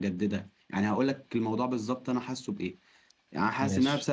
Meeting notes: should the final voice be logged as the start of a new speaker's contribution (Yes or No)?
No